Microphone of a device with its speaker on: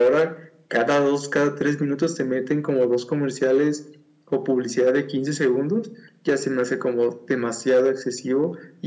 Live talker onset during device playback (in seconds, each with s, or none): none